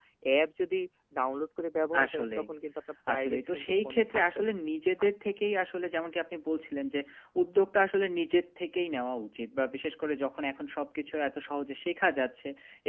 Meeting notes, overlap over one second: present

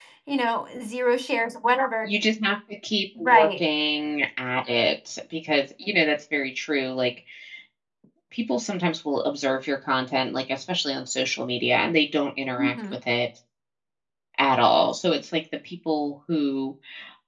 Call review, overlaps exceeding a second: none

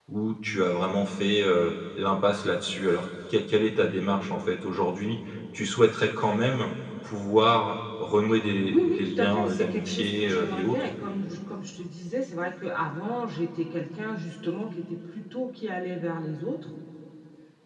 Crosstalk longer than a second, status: present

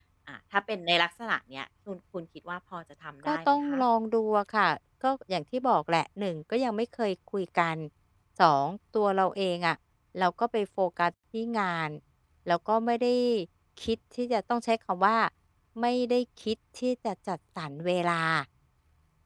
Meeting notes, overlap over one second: none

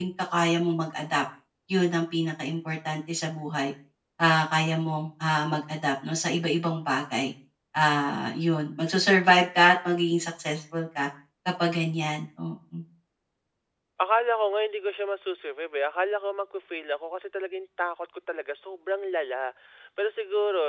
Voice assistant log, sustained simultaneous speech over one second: none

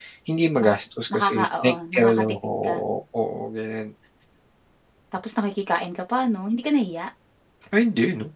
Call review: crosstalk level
present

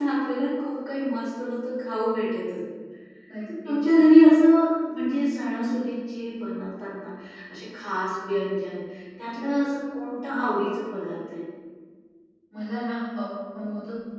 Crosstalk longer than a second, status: none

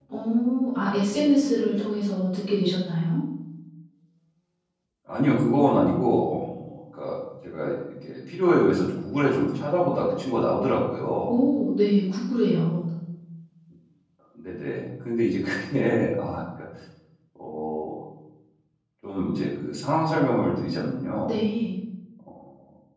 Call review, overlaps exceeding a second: none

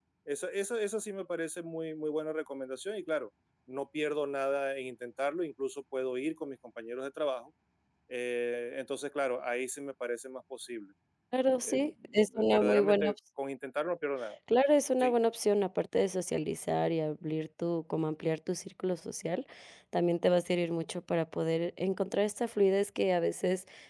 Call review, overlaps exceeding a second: present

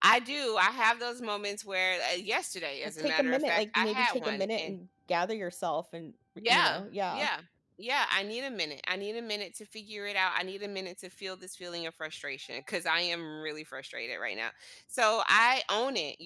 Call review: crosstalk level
present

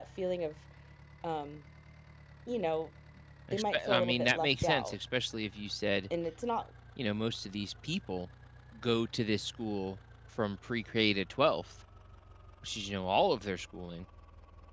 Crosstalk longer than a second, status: present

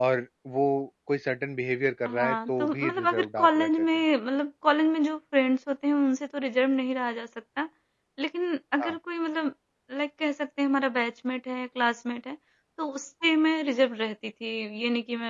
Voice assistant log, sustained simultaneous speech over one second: present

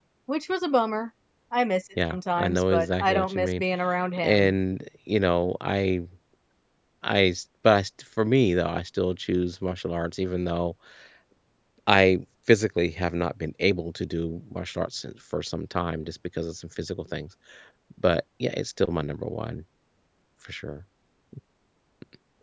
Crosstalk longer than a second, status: present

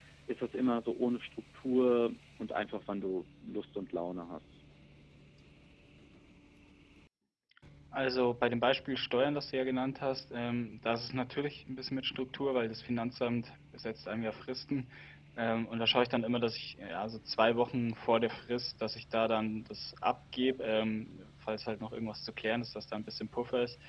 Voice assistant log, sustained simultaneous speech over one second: none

